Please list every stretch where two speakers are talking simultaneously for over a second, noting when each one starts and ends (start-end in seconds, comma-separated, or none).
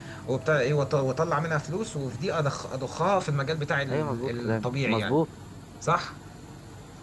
3.9-5.2